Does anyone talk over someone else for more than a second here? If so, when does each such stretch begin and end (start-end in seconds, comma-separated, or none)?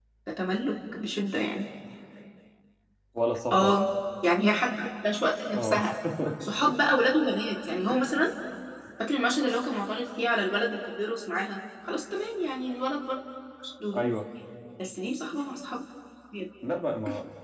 none